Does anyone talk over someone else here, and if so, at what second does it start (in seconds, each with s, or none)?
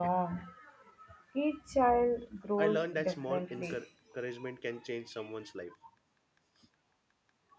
2.6 s